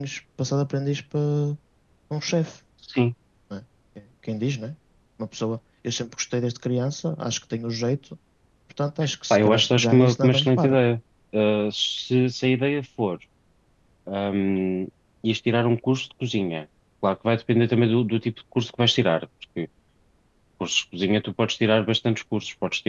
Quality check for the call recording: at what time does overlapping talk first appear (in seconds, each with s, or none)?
9.3 s